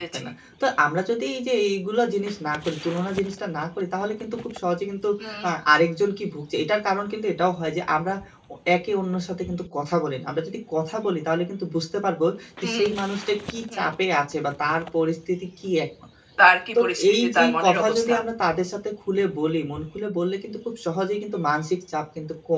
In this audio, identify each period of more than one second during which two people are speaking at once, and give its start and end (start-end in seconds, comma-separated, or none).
16.8-18.1